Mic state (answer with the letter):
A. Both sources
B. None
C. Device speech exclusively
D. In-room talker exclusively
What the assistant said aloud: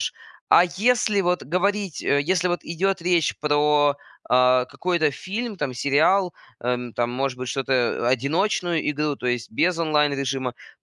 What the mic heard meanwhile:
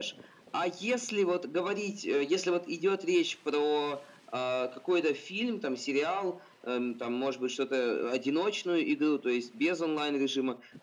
C